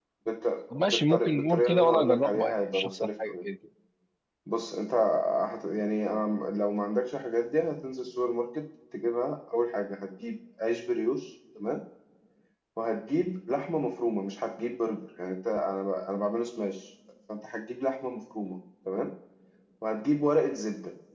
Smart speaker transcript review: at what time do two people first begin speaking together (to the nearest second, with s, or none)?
1 s